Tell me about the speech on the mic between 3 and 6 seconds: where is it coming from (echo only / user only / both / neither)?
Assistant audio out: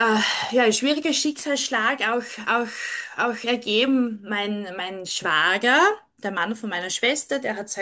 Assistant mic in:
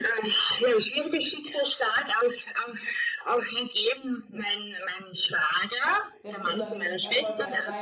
echo only